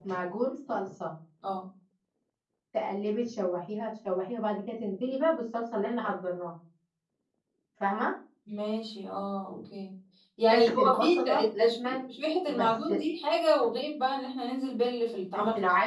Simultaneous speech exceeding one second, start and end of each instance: 10.5-11.9

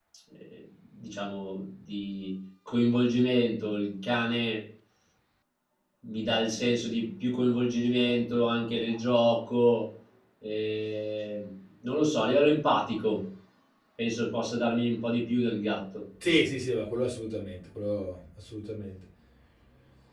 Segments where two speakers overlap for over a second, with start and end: none

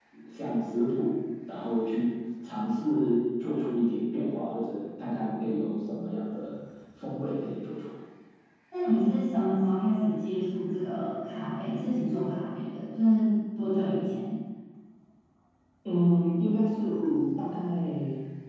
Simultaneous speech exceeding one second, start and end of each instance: none

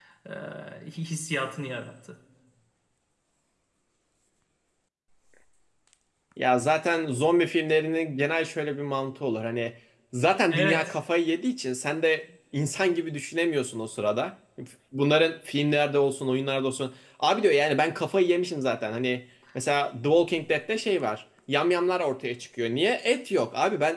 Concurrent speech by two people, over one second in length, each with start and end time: none

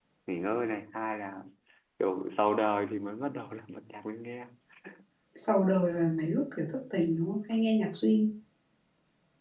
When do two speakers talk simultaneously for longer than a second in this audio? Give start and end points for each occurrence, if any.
none

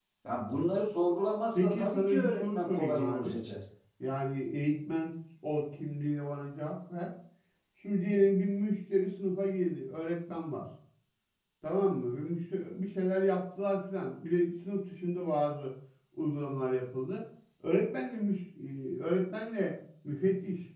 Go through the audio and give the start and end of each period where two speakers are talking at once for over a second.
1.5-3.4

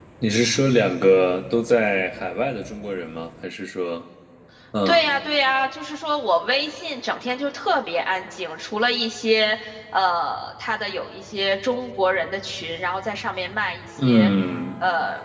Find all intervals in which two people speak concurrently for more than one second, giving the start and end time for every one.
none

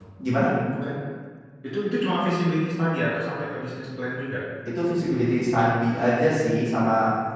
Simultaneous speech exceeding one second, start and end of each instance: none

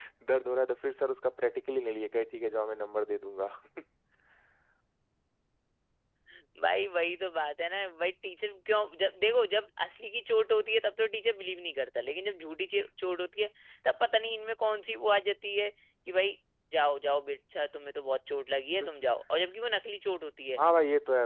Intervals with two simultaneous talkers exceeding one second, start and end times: none

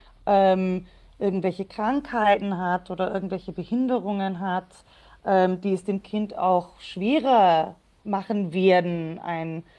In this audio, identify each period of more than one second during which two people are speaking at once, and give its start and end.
none

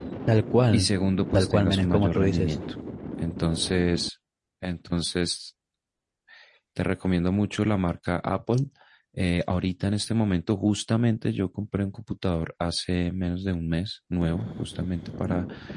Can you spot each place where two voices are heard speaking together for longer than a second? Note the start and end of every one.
1.3-2.6

